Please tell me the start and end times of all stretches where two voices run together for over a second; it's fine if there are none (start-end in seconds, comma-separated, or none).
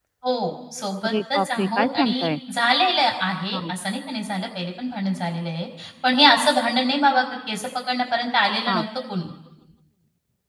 1.0-2.3